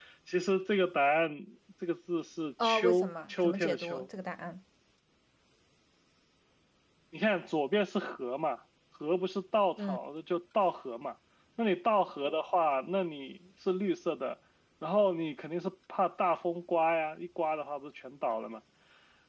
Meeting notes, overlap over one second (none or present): present